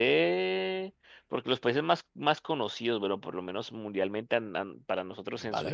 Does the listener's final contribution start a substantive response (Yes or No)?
No